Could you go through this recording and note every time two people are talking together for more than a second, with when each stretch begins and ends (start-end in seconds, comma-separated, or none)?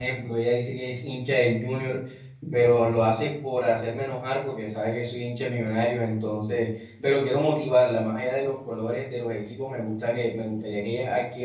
none